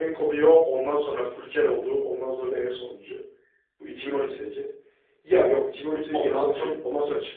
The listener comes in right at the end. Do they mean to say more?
No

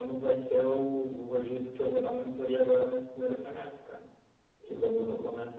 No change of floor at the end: Yes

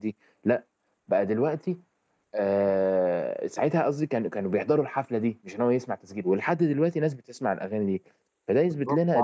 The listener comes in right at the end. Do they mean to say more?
Yes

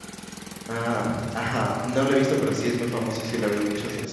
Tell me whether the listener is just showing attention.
No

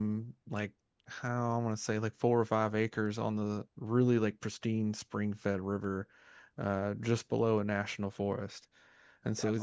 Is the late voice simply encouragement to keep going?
Yes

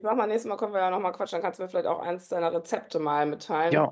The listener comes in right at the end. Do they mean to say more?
Yes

